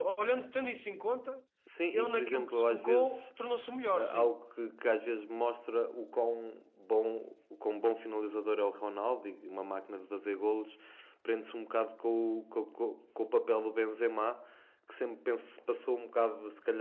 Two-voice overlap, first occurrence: 1.9 s

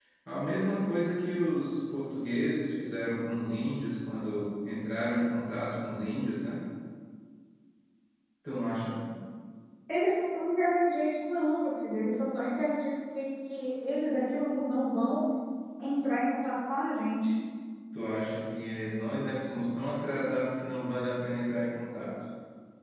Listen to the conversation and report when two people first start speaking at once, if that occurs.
none

